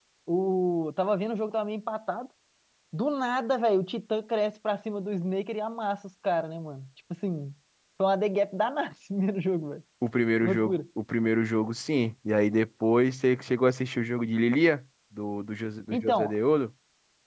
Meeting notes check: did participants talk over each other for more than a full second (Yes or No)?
No